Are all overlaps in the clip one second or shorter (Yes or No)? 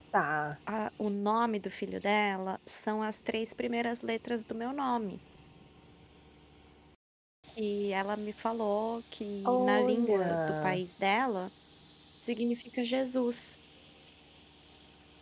No